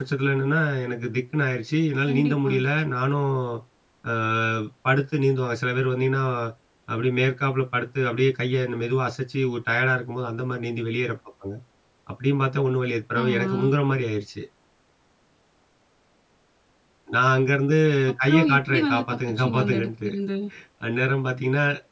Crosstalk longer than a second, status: present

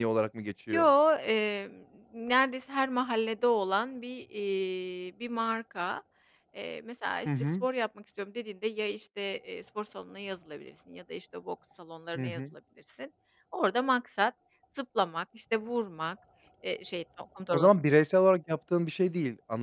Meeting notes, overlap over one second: none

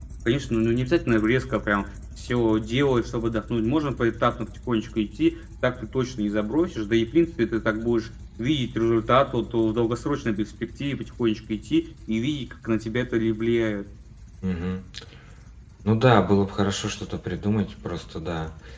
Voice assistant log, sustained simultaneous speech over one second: none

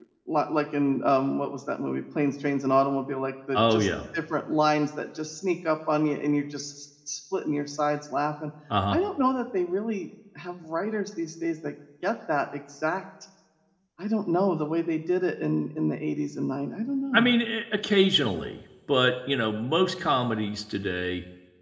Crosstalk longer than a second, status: none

